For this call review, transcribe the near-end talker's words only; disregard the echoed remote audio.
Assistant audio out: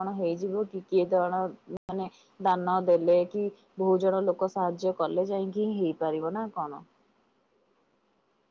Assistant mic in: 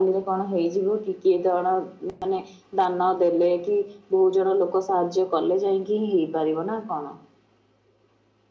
none

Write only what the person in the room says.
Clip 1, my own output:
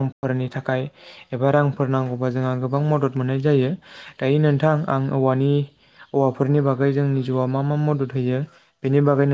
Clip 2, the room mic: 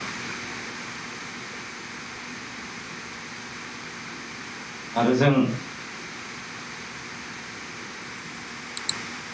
आरो जों

